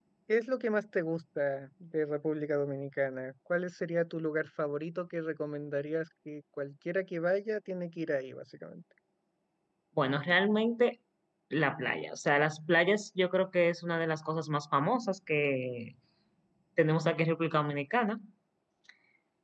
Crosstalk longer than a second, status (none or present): none